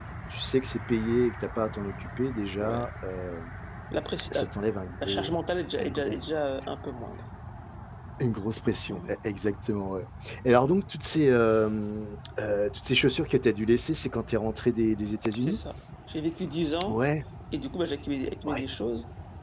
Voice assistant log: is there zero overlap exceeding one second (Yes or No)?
Yes